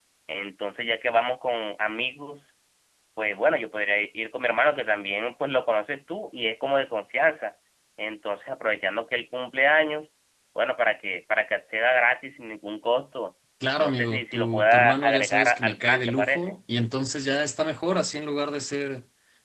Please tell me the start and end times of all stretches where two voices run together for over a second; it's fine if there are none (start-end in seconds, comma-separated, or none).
13.8-16.6